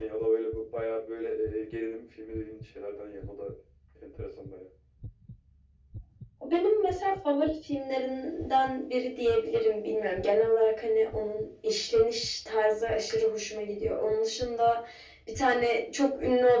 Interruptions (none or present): none